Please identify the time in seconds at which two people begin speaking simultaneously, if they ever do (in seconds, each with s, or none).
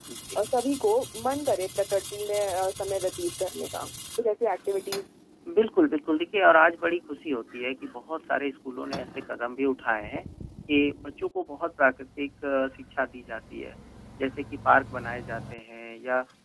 none